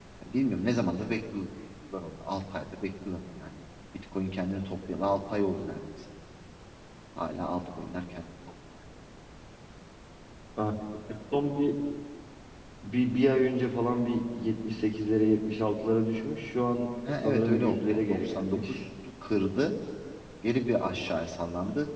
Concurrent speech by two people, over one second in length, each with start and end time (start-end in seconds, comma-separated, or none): 17.2-18.8